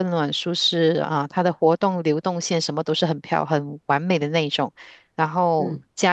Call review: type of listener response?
listening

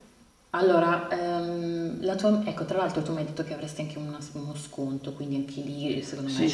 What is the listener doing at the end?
taking over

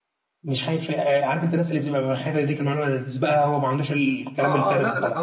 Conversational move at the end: taking over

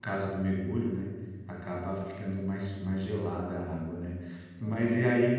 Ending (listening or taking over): listening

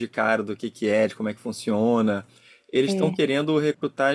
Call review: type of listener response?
listening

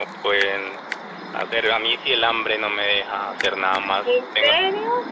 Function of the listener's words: listening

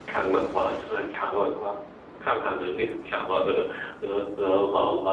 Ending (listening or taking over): taking over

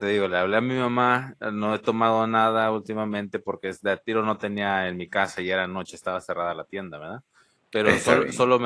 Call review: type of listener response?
listening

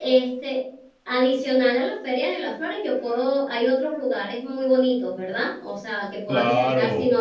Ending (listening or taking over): taking over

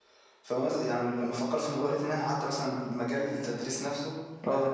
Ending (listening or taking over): listening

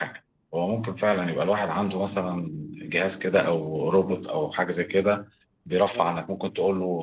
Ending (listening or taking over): listening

